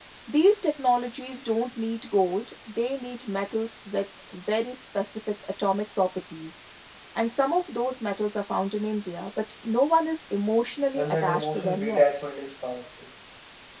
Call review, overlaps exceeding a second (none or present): present